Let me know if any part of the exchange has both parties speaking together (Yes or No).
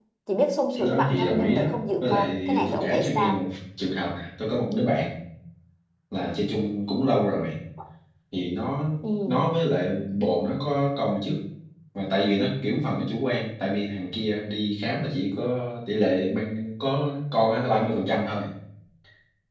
Yes